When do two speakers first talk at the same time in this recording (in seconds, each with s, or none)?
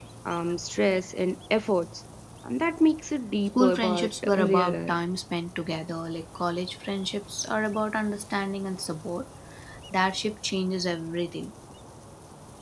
3.5 s